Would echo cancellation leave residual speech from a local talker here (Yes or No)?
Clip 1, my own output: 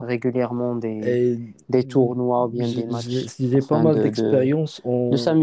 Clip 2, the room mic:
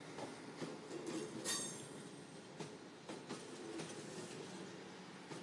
No